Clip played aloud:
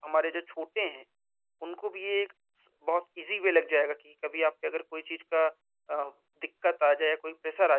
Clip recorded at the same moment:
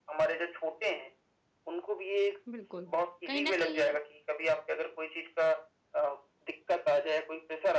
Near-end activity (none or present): present